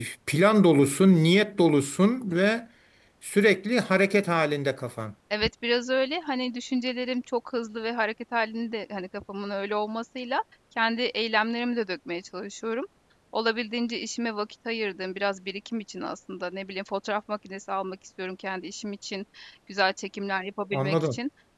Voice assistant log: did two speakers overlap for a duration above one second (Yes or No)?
No